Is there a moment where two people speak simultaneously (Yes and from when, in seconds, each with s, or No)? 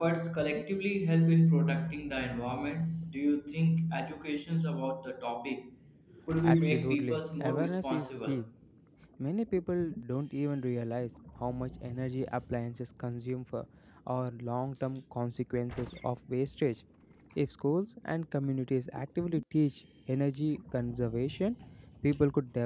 Yes, from 6.4 s